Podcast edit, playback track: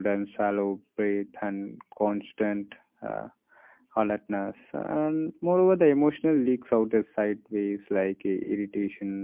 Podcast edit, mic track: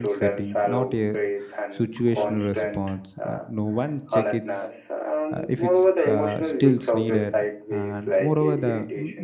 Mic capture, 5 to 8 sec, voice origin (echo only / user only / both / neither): both